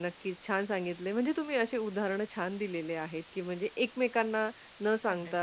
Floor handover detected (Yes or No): No